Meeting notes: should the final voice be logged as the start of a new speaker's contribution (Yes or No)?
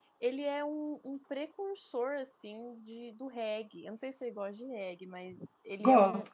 No